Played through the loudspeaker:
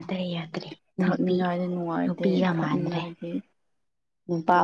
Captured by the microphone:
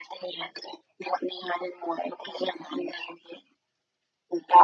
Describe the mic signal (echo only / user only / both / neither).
echo only